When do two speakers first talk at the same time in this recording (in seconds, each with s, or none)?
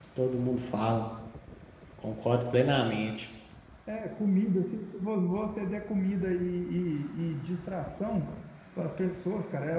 none